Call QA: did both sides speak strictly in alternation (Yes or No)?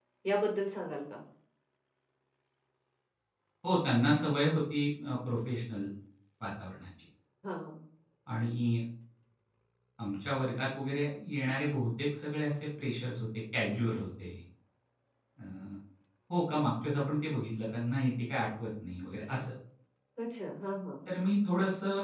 Yes